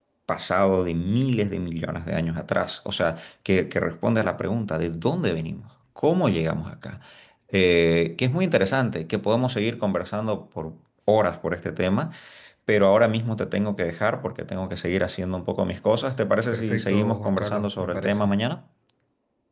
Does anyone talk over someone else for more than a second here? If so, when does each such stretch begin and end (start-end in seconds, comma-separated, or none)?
16.5-18.3